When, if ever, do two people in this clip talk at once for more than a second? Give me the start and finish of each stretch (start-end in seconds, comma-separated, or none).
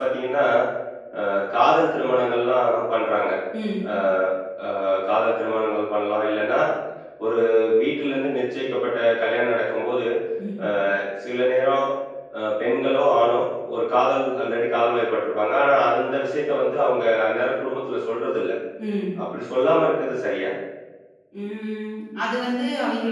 none